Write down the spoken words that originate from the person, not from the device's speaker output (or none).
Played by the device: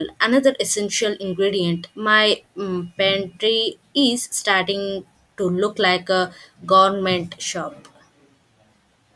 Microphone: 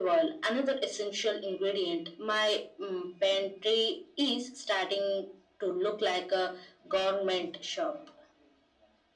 none